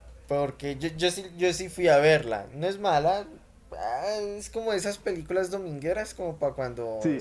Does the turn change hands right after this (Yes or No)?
Yes